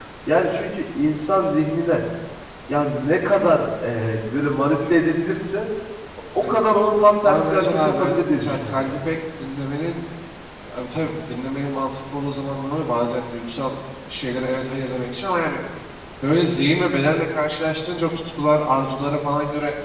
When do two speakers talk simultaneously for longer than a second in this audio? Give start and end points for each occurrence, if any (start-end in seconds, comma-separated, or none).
7.2-9.0